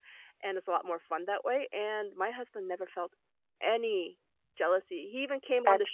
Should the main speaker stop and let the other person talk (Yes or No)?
No